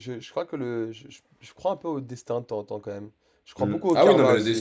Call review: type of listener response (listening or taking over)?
taking over